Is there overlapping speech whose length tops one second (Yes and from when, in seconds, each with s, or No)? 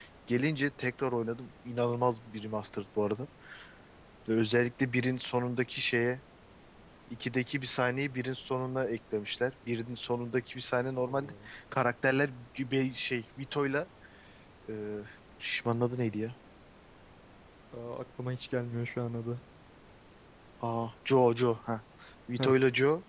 No